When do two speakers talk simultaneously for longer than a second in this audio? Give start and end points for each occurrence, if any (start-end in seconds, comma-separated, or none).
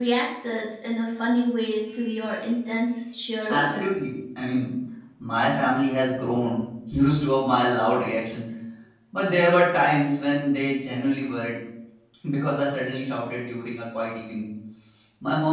none